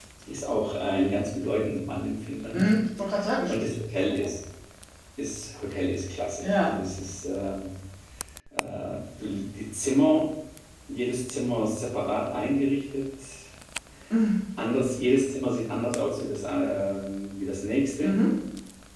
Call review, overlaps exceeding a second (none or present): none